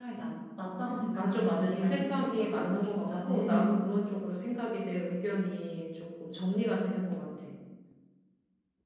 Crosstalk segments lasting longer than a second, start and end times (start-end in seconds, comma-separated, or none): 1.1-3.8